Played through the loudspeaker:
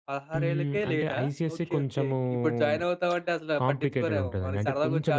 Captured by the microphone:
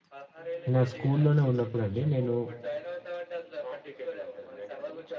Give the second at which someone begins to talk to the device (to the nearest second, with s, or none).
1 s